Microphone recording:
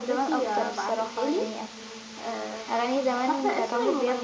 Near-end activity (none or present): none